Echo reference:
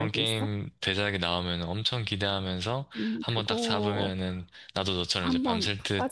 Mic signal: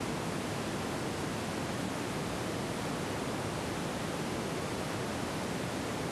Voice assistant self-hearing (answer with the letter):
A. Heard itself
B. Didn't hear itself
B